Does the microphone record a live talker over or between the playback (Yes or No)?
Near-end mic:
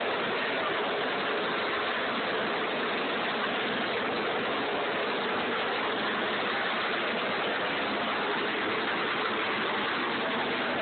No